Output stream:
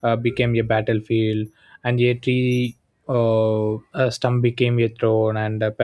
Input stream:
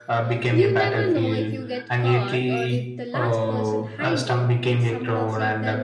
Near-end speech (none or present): present